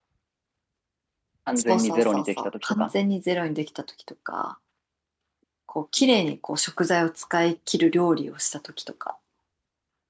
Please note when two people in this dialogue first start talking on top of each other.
1.6 s

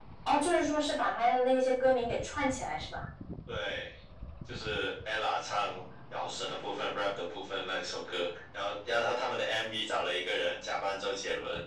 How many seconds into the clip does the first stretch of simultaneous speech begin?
none

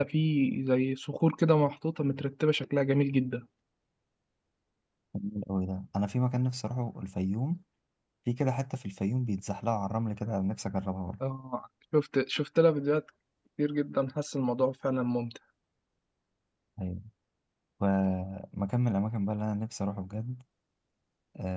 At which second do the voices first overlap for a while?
none

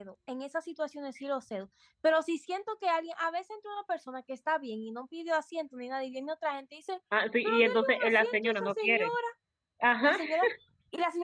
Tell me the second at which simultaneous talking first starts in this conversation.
7.4 s

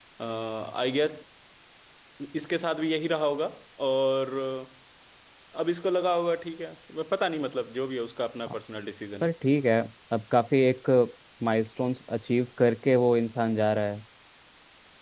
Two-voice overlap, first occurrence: none

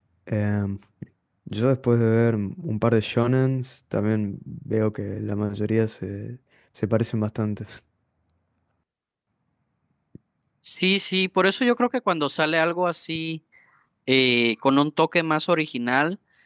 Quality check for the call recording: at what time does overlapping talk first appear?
none

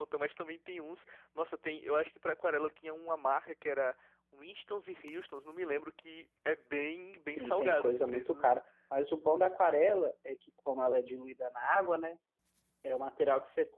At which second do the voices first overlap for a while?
7.2 s

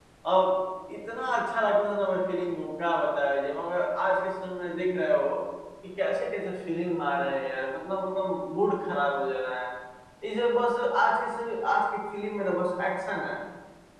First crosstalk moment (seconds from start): none

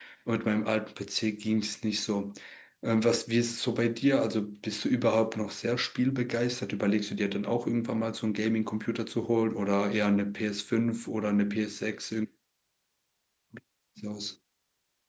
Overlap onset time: none

